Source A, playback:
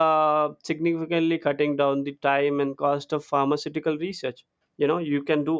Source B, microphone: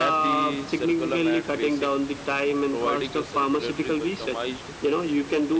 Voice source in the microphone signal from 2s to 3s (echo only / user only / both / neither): both